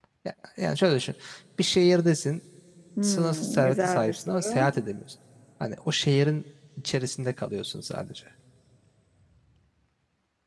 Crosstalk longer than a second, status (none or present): present